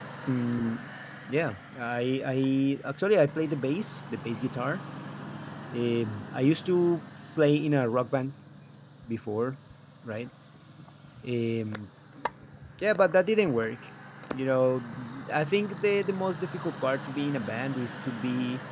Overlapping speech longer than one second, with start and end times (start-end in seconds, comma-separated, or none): none